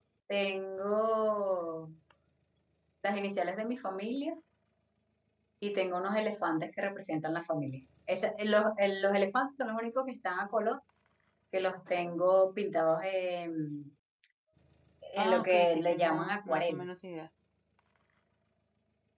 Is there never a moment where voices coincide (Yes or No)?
No